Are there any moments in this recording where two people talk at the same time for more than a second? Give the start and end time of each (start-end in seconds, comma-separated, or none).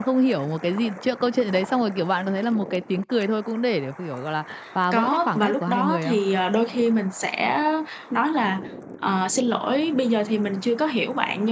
4.9-6.2